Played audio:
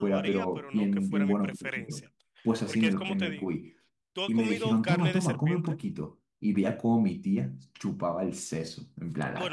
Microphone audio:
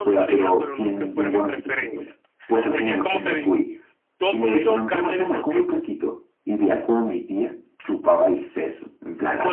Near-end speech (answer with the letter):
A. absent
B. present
A